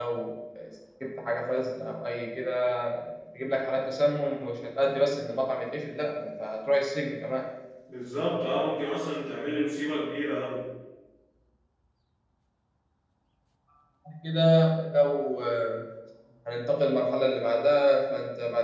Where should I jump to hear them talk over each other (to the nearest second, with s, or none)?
none